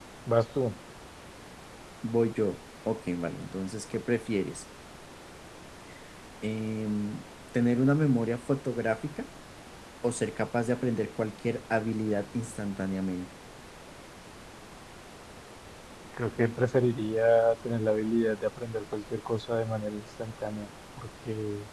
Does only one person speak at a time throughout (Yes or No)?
Yes